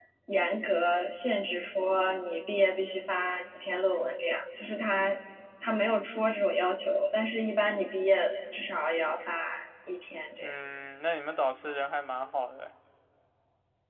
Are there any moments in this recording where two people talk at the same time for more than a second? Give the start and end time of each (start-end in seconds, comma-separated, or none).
none